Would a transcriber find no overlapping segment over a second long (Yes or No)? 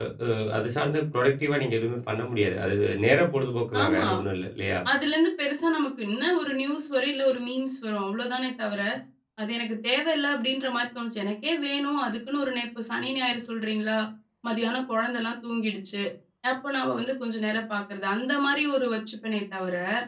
Yes